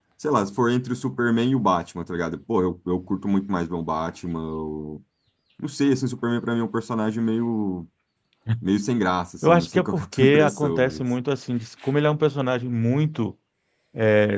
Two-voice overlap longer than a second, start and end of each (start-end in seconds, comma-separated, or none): 9.4-11.0